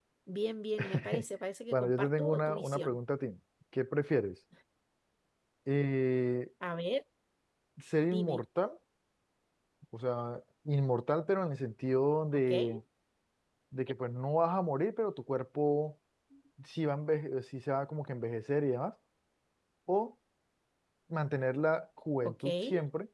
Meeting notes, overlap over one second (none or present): present